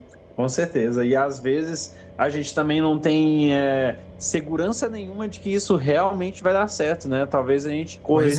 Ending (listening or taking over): listening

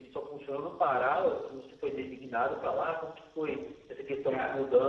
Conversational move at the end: listening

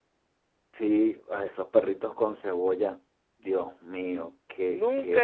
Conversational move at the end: taking over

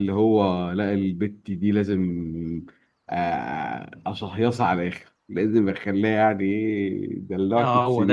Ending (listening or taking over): taking over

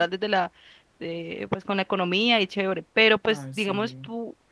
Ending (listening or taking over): listening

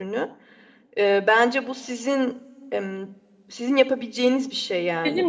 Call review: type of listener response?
listening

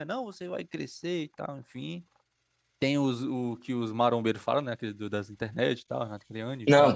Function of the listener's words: taking over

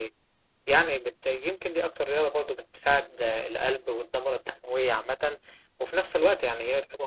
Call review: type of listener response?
listening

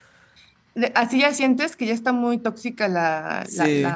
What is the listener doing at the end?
taking over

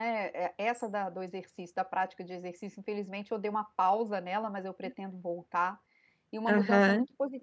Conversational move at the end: listening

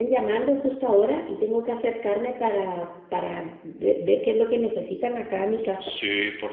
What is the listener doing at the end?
taking over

